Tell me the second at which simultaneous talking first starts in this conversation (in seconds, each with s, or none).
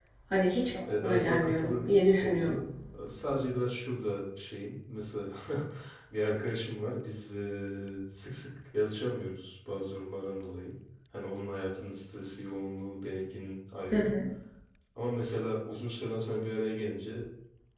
1.0 s